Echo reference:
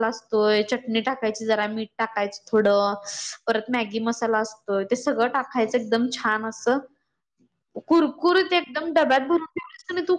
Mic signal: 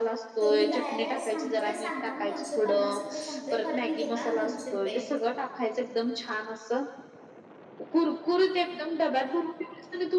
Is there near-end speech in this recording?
Yes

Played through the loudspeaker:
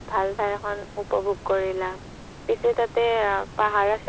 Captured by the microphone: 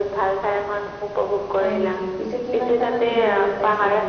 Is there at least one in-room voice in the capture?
Yes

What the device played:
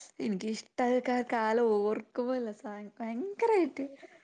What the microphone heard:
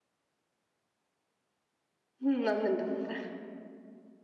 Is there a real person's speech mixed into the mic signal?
Yes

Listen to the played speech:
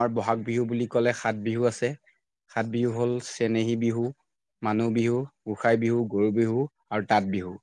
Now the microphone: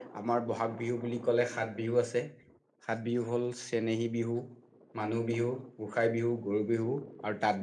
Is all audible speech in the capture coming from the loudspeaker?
Yes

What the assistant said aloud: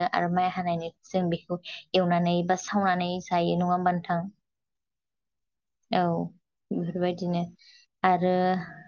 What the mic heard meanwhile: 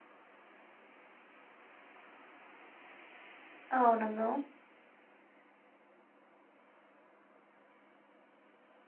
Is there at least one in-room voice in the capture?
Yes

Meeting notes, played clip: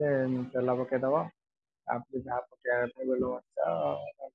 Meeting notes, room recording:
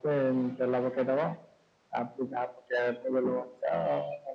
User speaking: No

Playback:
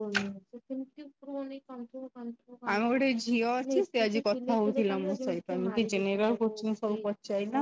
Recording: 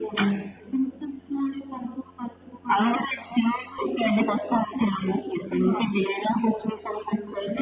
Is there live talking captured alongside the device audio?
No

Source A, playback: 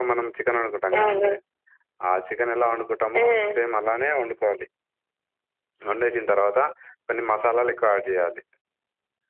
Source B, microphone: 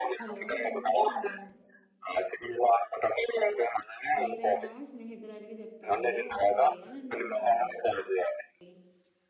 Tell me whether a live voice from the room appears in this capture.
Yes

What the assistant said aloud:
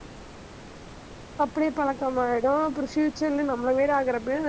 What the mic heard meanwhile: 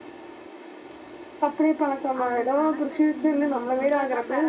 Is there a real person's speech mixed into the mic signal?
Yes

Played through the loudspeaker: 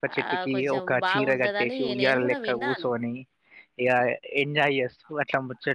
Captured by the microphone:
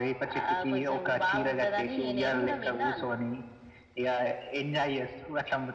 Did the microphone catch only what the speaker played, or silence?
Yes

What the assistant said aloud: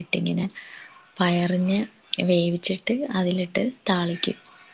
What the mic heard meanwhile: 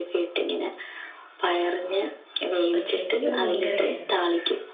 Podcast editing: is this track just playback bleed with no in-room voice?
No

